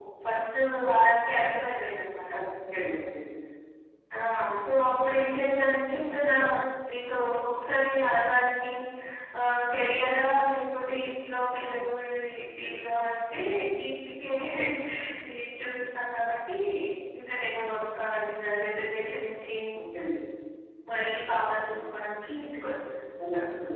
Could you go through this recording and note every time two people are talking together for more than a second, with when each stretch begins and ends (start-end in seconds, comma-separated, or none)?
none